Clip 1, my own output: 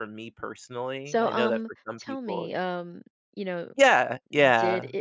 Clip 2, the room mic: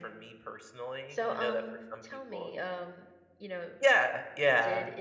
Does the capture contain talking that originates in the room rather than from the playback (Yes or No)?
No